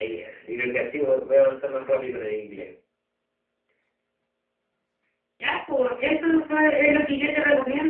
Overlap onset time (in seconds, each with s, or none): none